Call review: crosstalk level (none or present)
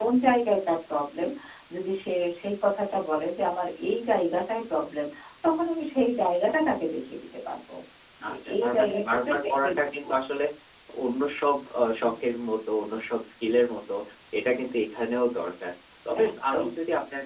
present